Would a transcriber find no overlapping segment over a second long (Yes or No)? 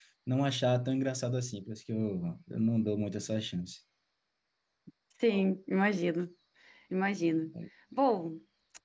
Yes